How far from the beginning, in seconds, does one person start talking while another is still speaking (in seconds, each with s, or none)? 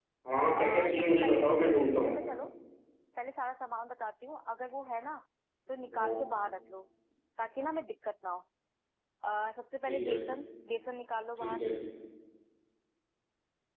0.6 s